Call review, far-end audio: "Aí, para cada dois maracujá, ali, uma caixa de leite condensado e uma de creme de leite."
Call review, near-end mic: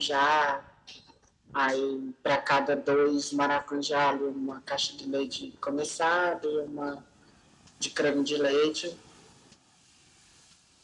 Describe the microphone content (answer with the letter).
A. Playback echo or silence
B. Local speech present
A